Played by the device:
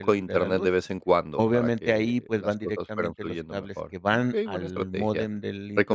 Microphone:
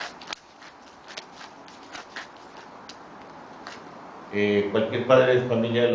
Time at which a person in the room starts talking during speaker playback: 4 s

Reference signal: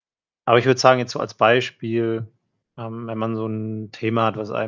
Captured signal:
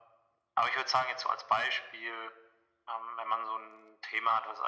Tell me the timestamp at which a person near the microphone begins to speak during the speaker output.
none

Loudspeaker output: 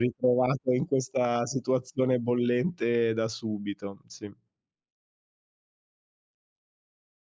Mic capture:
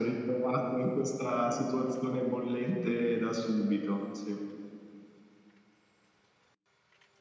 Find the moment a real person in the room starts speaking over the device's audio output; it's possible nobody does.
none

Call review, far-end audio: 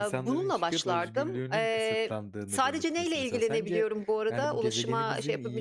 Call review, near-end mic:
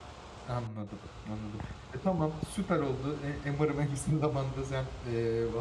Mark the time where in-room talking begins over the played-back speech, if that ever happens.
0 s

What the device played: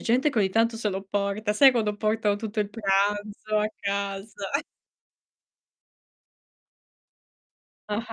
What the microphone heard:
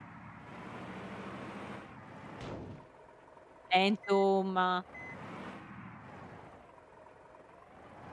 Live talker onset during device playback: 4 s

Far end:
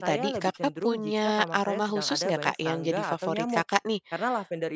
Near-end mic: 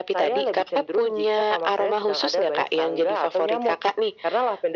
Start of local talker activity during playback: none

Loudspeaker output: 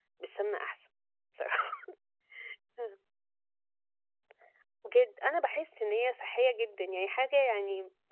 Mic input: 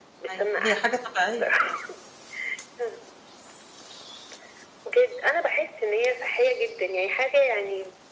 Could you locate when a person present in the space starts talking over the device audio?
0 s

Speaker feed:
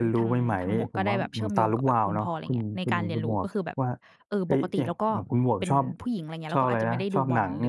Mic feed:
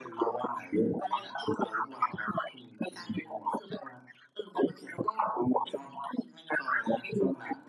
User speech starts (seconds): none

